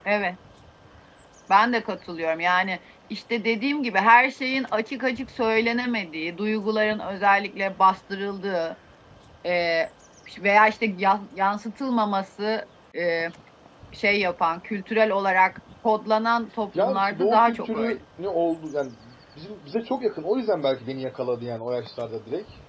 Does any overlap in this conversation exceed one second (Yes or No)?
Yes